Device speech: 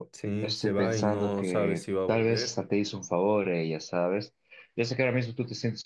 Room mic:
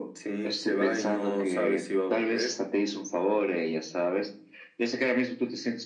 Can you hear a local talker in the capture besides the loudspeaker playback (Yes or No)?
No